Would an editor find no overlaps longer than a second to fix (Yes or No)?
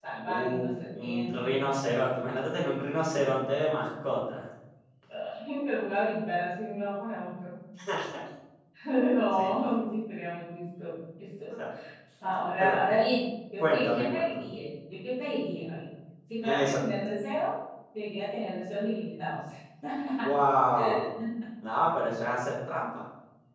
No